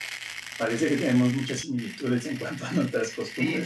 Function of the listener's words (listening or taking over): taking over